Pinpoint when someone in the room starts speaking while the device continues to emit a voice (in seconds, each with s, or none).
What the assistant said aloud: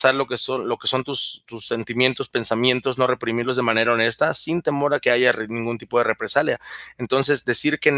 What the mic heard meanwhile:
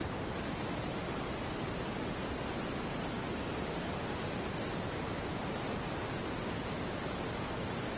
none